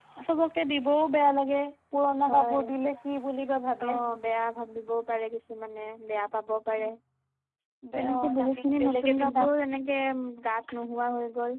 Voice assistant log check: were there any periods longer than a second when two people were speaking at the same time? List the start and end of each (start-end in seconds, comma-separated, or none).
8.0-9.4